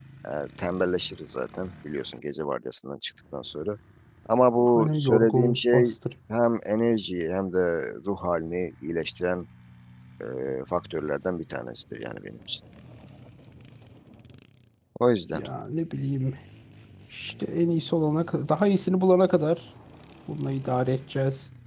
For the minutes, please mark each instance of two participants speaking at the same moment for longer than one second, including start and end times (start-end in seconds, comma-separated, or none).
4.6-5.9